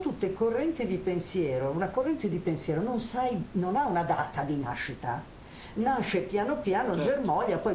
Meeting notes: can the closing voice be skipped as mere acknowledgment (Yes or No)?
Yes